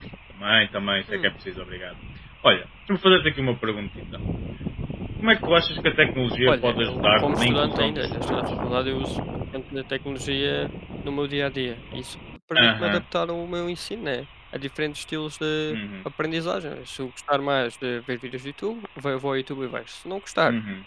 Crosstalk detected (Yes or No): Yes